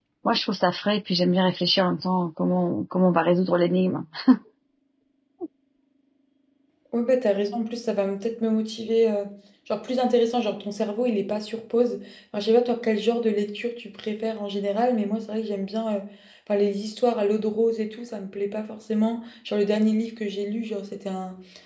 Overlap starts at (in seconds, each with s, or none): none